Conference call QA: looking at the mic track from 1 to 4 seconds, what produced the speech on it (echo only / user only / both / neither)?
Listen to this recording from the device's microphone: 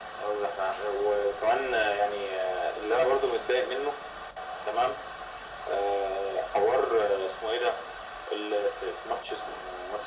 echo only